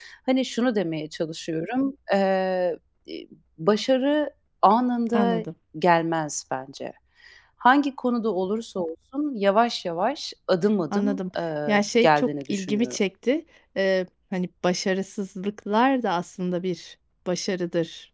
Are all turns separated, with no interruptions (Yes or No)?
No